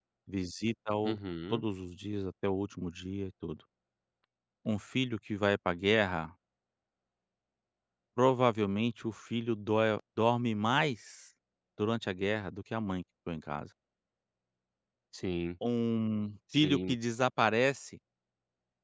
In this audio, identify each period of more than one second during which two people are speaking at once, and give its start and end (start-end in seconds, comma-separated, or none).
none